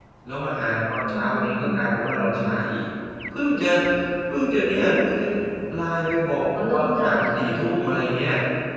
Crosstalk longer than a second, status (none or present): present